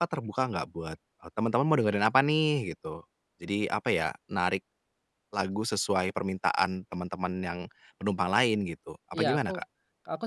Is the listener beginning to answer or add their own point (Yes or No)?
Yes